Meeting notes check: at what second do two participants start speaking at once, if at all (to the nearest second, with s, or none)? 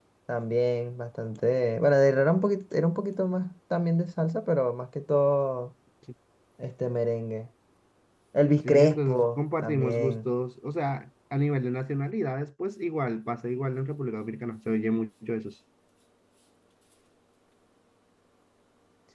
9 s